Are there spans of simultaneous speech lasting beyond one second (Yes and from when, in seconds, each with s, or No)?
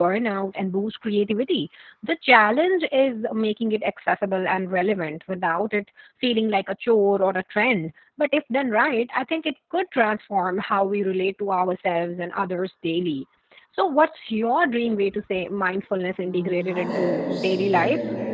Yes, from 16.2 s